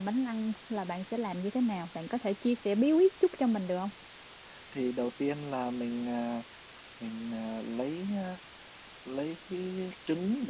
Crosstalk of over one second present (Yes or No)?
No